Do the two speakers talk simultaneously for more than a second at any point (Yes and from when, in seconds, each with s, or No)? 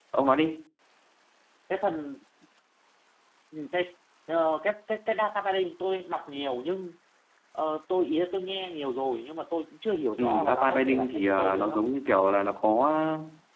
Yes, from 10.2 s